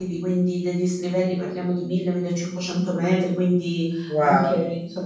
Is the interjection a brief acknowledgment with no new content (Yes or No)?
Yes